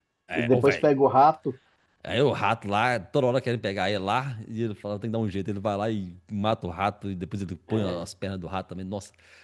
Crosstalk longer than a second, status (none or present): none